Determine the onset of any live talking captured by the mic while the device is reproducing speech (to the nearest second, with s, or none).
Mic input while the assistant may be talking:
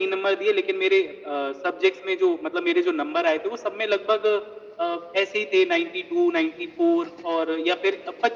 none